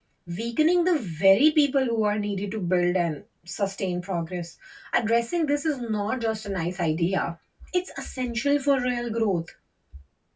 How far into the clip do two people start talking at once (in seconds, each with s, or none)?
none